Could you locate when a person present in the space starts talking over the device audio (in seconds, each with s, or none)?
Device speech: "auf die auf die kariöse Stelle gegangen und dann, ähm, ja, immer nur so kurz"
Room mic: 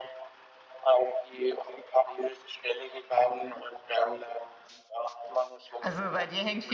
5.8 s